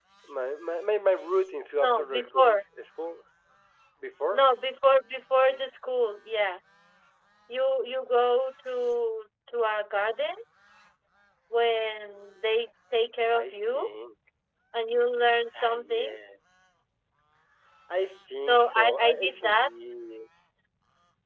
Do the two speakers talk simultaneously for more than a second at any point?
Yes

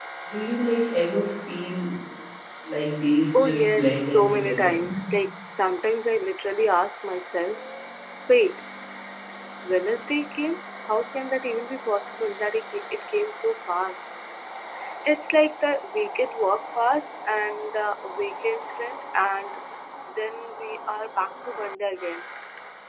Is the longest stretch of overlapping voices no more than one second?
No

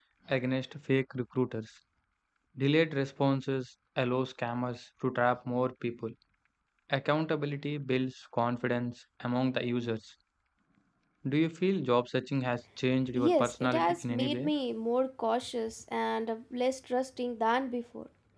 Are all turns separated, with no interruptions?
No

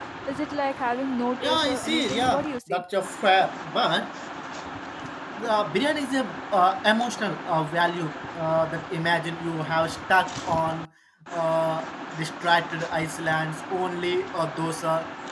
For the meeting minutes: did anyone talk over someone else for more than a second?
Yes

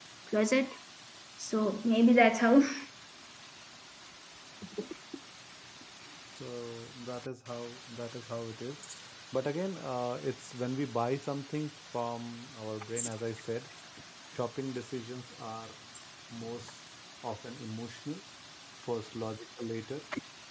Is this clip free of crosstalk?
Yes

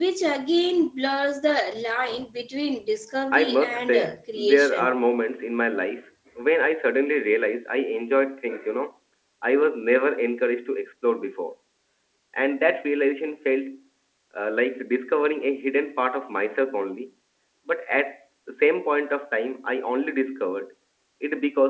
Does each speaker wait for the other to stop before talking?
No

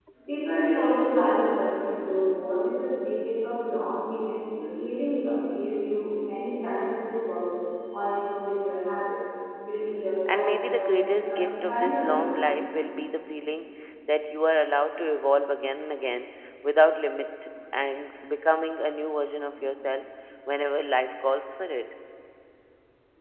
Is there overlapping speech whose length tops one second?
Yes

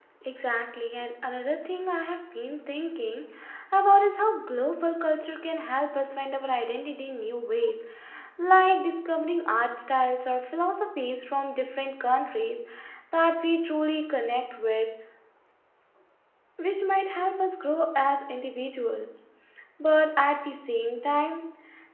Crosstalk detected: No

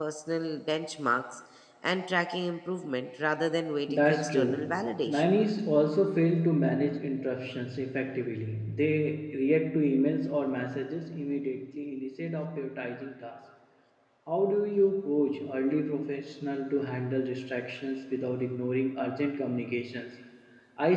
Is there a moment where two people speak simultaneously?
Yes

